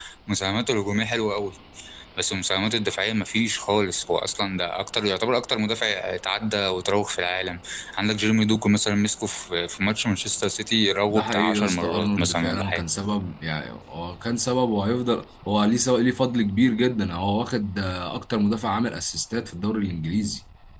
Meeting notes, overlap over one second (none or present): present